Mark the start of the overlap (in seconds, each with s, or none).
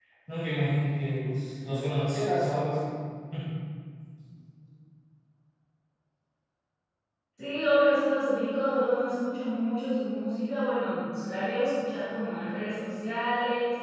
none